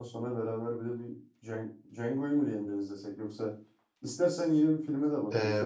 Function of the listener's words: taking over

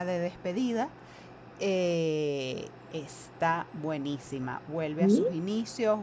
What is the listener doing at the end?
listening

